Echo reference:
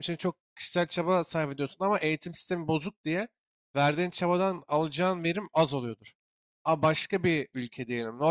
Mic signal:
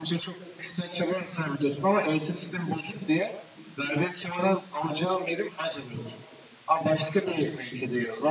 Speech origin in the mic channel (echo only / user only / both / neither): echo only